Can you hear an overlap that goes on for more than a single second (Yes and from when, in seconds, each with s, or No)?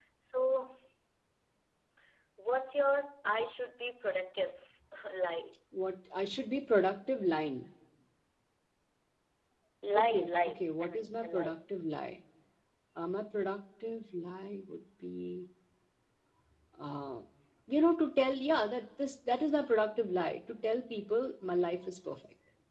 Yes, from 10.0 s